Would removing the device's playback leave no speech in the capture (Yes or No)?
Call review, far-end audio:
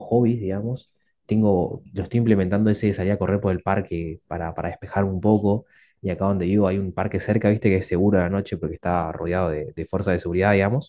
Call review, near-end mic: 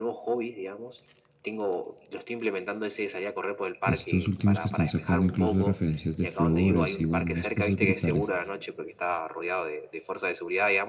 No